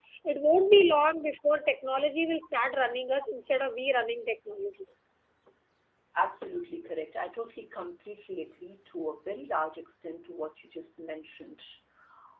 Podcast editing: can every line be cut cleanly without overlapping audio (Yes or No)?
Yes